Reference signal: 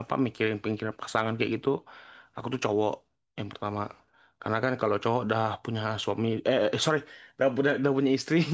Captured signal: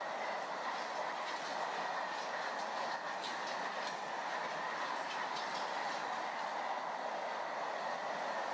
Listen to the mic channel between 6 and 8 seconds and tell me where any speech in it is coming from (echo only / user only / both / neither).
neither